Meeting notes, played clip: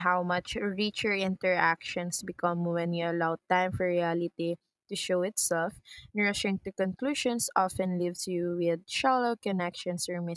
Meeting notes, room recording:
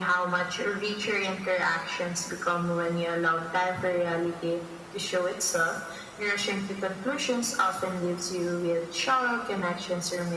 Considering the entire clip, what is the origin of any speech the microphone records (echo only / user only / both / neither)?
echo only